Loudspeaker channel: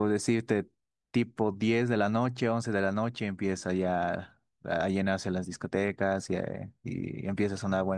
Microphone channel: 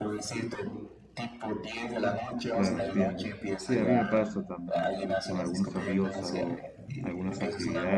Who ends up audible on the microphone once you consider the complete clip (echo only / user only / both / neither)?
both